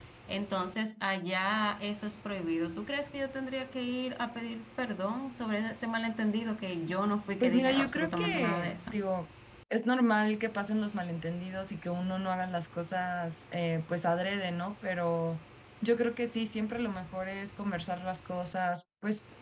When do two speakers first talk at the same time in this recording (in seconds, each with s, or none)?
7.4 s